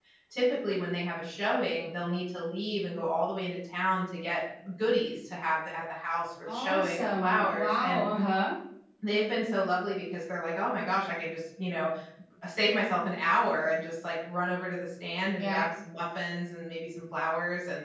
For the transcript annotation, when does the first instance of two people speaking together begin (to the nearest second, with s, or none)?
7 s